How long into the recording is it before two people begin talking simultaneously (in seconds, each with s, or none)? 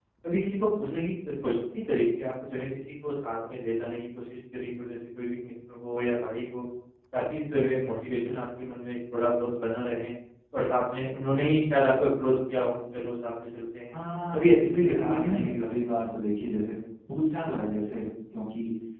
14.3 s